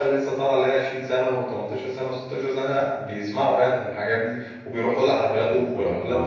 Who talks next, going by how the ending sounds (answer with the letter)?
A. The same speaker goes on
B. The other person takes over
B